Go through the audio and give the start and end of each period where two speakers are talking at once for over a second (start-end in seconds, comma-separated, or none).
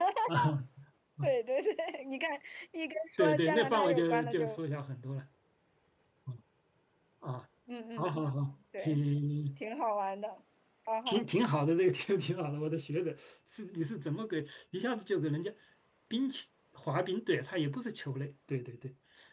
3.2-4.6